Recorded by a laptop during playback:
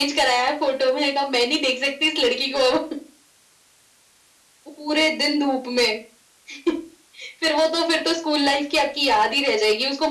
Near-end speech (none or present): none